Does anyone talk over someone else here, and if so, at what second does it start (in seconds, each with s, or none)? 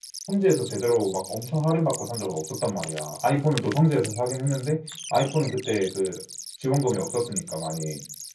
none